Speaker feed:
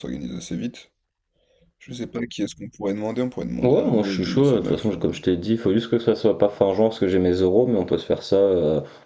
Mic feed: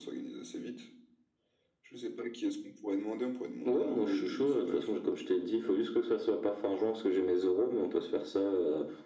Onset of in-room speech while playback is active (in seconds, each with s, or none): none